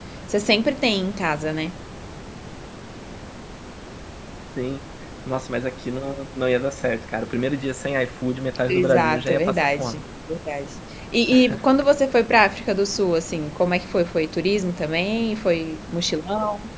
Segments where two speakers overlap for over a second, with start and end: 8.7-10.0

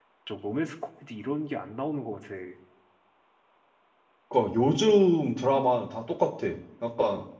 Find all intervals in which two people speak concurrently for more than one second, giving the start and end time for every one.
none

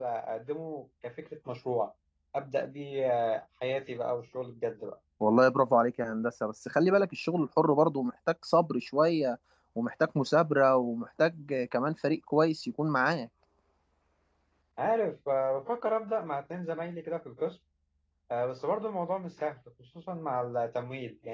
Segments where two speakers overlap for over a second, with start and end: none

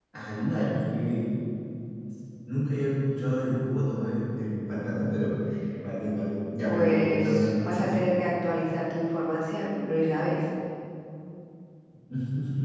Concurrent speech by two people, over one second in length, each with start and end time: 6.6-8.0

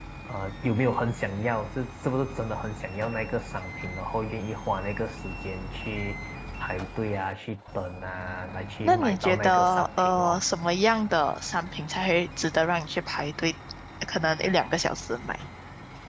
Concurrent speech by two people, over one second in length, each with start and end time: 8.8-10.4

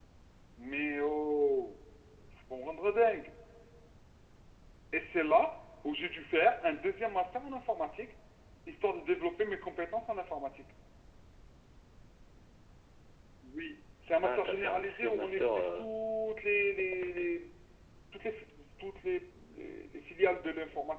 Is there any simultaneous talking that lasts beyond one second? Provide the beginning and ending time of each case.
14.2-15.8

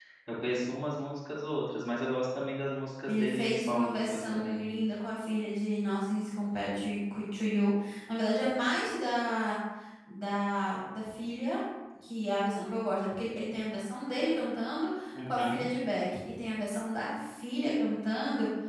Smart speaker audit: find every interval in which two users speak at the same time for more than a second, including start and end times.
3.1-4.6

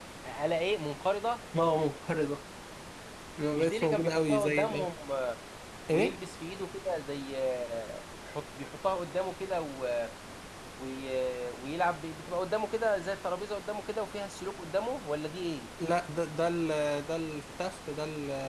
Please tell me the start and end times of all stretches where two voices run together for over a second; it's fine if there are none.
3.5-4.9

